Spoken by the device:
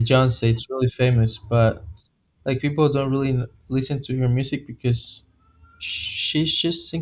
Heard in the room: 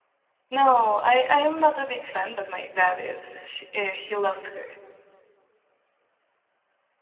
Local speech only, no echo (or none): no i i am not a big fan but my dad is she, uh, he loves her